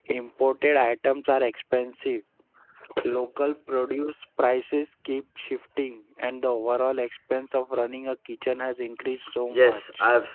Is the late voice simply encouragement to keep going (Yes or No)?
No